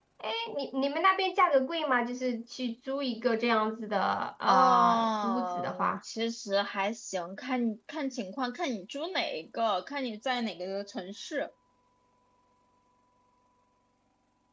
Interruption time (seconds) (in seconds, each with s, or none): 4.5 s